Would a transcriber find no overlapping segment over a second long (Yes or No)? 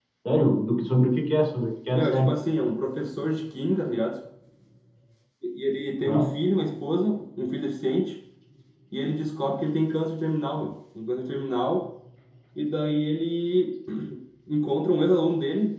Yes